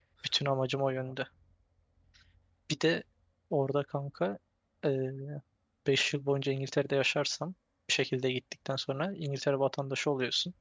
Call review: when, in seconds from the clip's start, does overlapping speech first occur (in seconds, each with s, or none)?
none